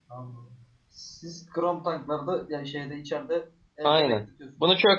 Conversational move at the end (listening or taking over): taking over